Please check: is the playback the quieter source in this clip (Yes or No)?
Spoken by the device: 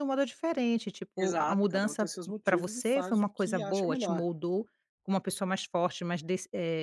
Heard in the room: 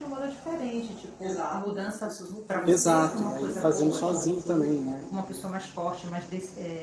Yes